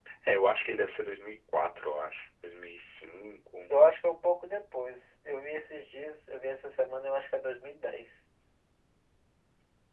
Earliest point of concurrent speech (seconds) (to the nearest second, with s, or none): none